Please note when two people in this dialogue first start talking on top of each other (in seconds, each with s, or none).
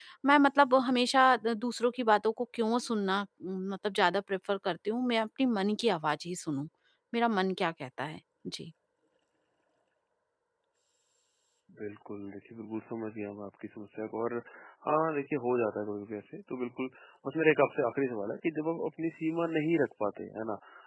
none